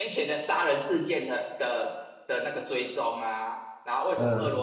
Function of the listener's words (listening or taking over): listening